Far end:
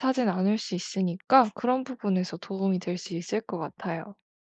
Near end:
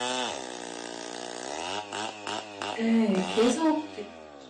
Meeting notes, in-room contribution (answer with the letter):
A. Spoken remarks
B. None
A